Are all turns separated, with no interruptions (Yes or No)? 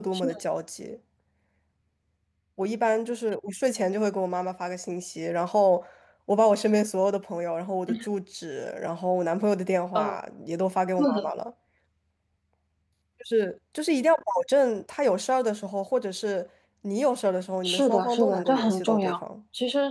No